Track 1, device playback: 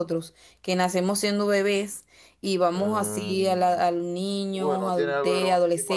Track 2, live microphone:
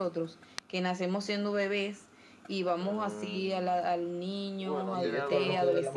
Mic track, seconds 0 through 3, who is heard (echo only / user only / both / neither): echo only